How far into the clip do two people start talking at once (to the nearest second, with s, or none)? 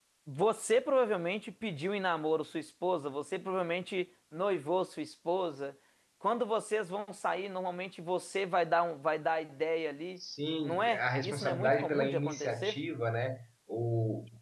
11 s